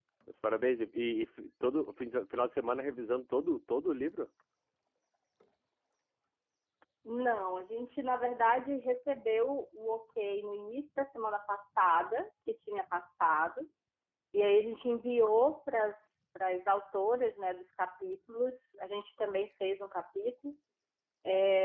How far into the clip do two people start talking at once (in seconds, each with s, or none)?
none